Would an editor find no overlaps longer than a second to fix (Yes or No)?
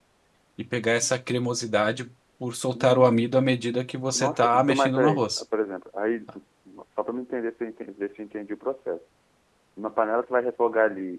No